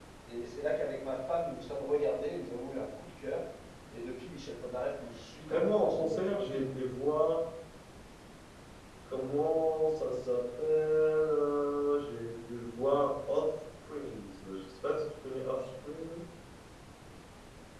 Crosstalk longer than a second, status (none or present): present